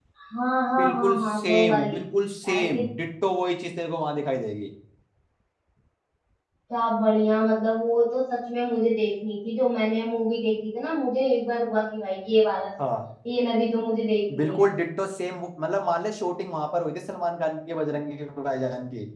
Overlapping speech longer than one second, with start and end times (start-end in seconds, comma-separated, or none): 0.8-2.0